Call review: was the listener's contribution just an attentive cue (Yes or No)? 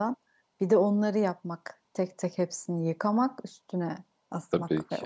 No